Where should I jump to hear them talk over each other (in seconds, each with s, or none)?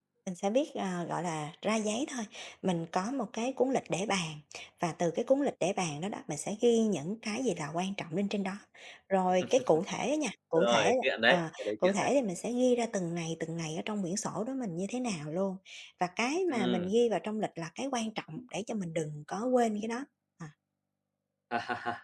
10.6 s